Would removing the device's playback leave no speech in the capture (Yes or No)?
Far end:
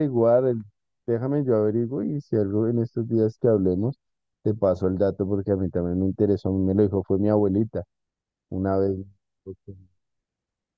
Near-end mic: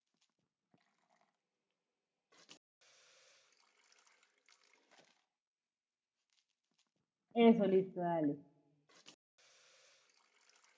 No